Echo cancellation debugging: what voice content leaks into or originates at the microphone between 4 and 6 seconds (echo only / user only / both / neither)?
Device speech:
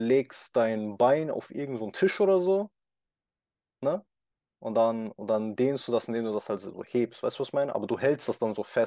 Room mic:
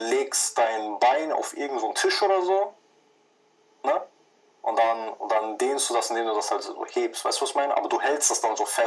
echo only